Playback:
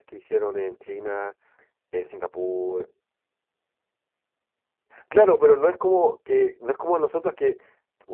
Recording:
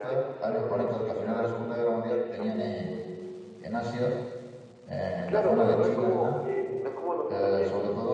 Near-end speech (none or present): present